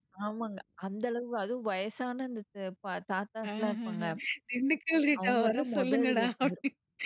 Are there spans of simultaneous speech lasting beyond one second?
Yes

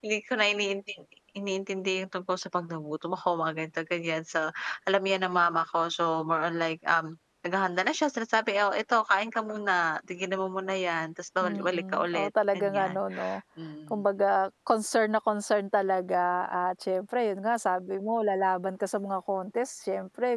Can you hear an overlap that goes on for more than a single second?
Yes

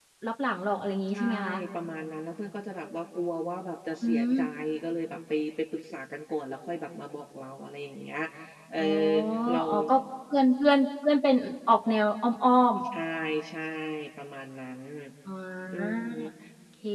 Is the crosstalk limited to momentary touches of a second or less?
Yes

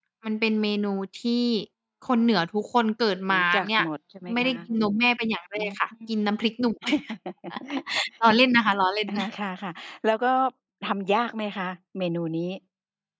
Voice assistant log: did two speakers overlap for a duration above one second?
No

